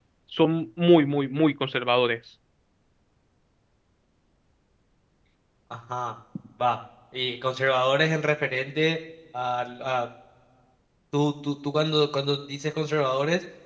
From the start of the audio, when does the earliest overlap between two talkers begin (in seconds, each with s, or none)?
none